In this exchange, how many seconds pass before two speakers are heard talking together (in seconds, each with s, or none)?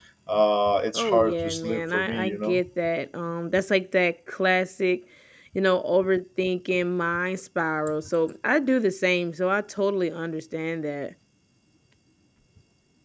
0.9 s